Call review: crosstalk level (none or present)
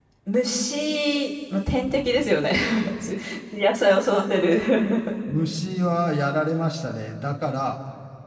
none